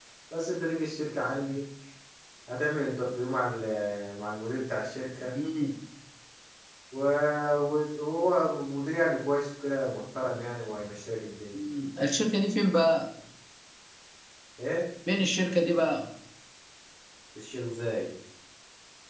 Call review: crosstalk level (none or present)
none